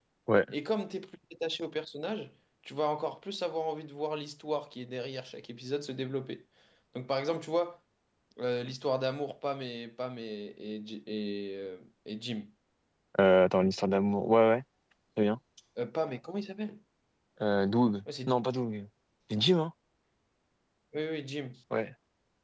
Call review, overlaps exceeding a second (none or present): none